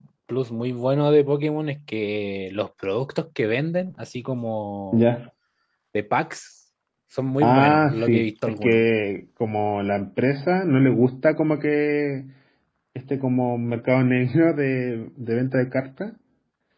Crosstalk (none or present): present